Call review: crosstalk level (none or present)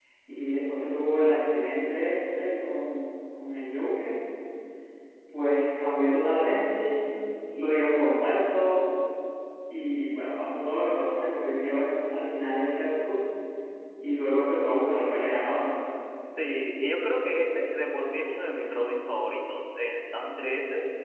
none